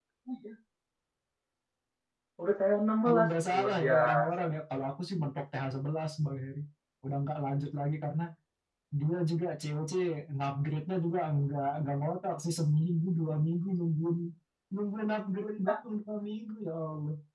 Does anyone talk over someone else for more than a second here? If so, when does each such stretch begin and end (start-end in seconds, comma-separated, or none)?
3.0-4.3